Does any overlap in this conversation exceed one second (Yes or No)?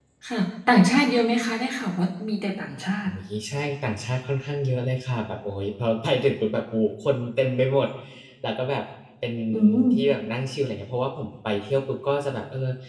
No